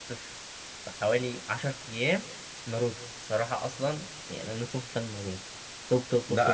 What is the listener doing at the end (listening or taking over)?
taking over